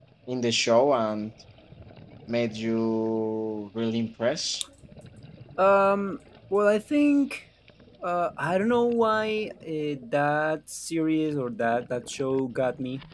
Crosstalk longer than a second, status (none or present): none